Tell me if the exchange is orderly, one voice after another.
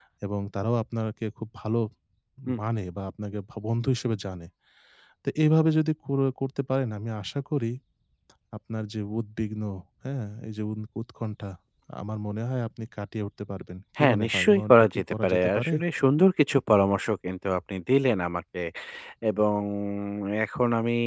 No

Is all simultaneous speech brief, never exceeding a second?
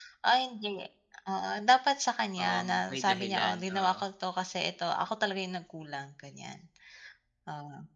No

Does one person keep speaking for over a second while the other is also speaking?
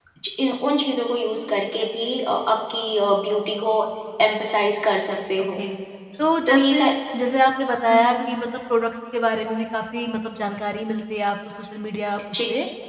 No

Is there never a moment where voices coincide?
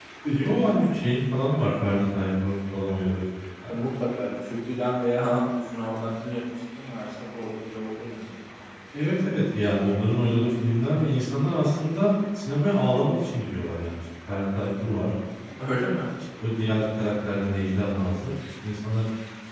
Yes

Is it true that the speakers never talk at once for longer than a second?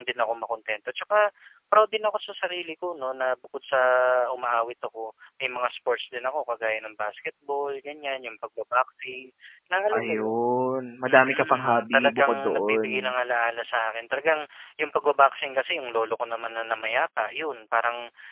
No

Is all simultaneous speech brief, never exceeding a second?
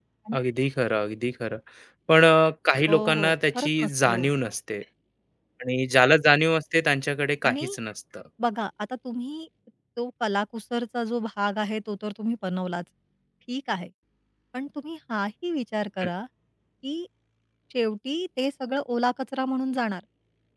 No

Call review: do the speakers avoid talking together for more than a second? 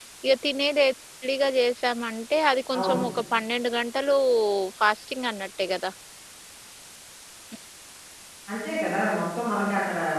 Yes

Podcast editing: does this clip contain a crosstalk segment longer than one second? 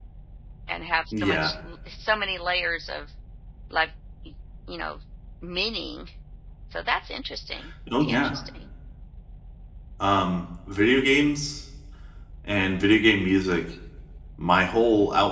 No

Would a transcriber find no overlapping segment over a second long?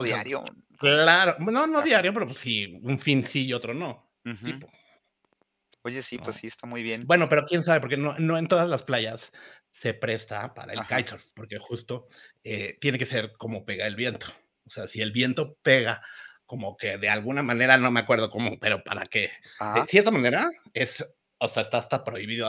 Yes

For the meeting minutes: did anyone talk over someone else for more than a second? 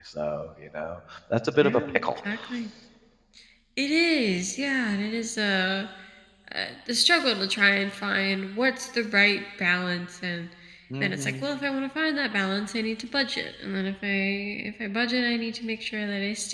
No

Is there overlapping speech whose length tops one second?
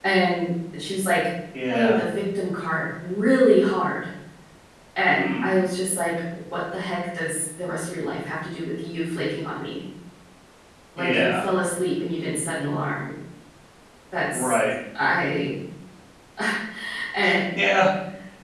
No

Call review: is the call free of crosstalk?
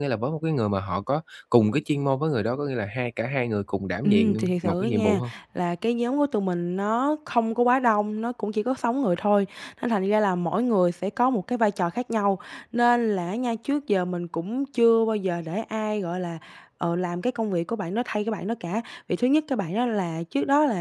No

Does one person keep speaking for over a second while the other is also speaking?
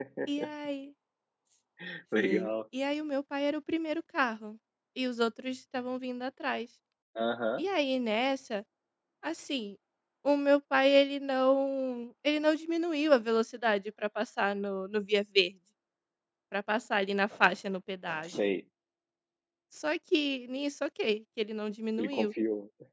No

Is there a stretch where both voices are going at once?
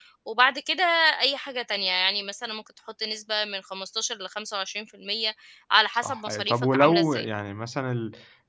Yes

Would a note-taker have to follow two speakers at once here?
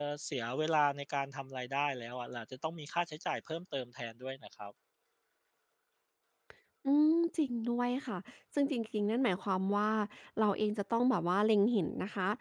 No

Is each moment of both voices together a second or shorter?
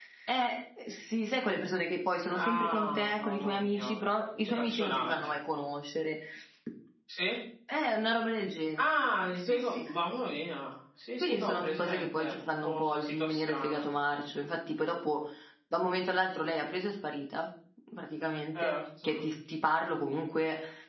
No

